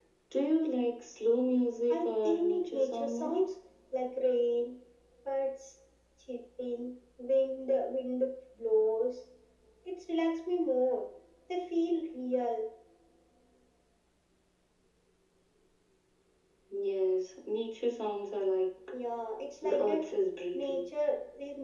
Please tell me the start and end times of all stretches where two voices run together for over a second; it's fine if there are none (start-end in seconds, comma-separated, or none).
1.9-3.3